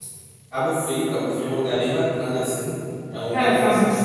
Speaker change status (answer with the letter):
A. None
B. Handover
B